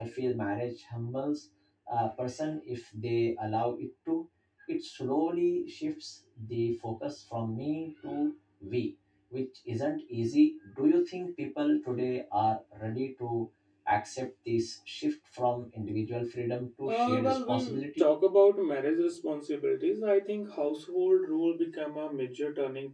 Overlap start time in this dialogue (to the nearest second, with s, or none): 17 s